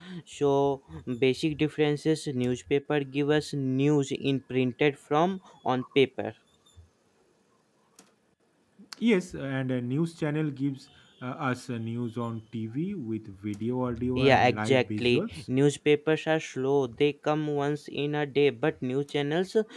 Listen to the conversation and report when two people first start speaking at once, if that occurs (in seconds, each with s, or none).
14.1 s